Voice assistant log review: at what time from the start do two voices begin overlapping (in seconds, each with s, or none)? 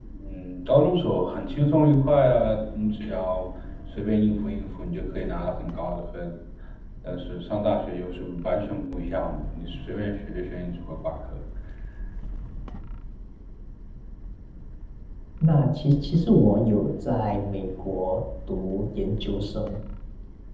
none